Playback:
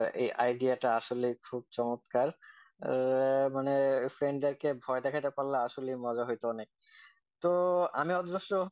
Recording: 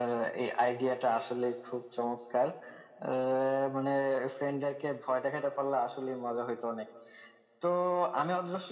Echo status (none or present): present